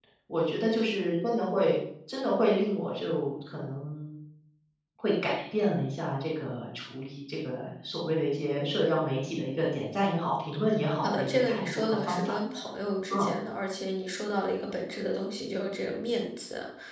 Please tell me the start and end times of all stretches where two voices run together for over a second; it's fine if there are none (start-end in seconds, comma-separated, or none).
11.0-12.4